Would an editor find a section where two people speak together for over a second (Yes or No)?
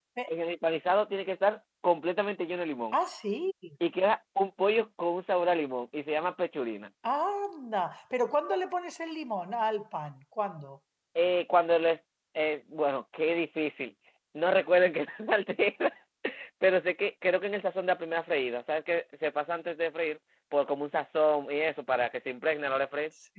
No